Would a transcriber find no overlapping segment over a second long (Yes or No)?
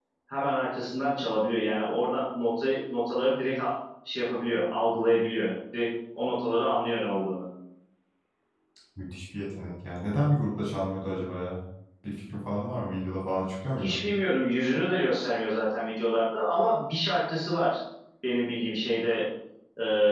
Yes